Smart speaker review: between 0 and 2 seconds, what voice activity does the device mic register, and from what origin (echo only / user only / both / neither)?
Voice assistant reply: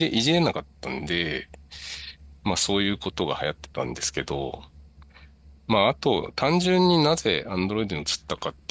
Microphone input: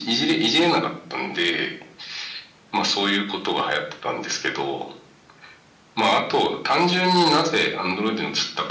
echo only